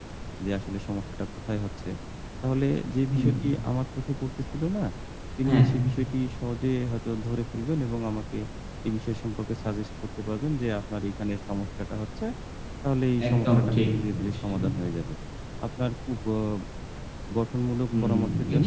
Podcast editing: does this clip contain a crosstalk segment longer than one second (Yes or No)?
Yes